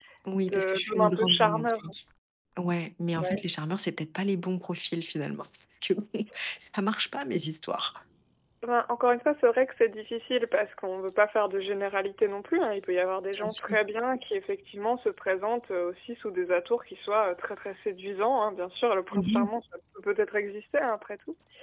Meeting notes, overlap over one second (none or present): present